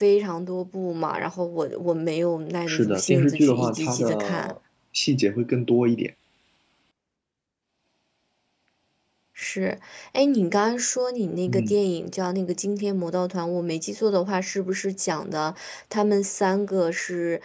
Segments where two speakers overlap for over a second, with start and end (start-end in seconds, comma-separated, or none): 2.7-4.5